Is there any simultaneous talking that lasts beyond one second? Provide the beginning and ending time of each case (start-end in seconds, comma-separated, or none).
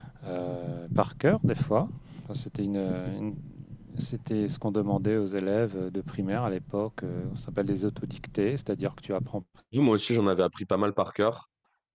none